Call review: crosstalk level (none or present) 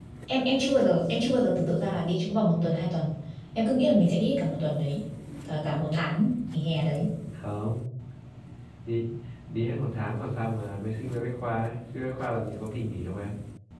none